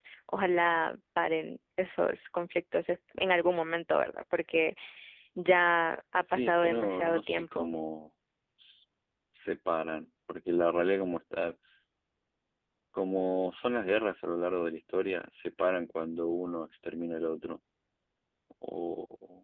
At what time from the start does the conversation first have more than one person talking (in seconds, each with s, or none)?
6.3 s